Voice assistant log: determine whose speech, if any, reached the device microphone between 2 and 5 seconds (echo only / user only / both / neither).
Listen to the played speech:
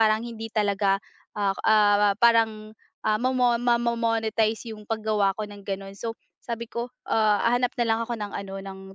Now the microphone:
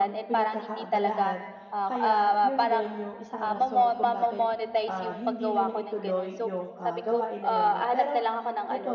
both